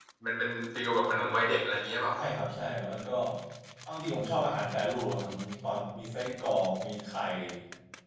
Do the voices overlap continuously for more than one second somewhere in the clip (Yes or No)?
No